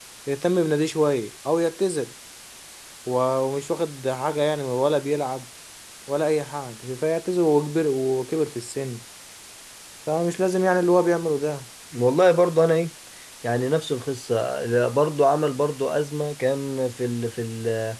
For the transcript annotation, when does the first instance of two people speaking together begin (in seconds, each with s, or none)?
none